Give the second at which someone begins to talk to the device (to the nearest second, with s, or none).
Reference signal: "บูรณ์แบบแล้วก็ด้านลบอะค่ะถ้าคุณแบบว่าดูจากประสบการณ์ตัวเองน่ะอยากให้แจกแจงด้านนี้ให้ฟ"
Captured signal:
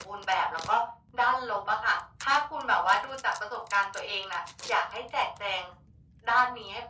none